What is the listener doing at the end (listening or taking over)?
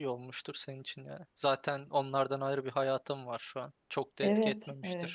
taking over